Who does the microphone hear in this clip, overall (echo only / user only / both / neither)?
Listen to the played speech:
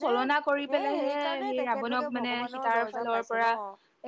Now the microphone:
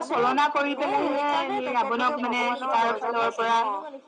both